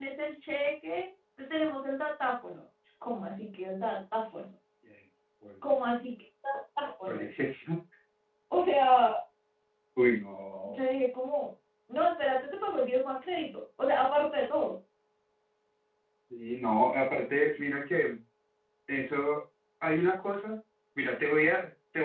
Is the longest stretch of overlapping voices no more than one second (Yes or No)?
Yes